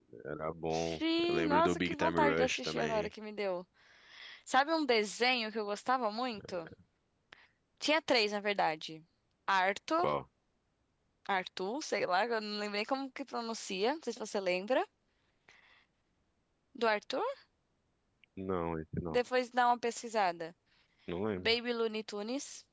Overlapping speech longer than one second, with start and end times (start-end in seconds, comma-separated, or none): 0.7-3.1